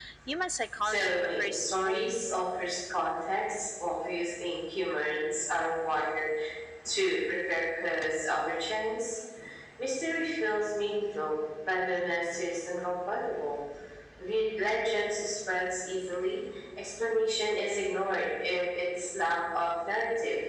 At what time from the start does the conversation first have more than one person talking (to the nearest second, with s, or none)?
1 s